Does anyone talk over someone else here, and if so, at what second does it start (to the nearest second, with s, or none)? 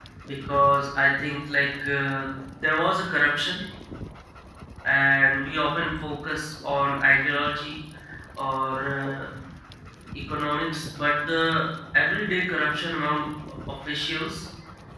none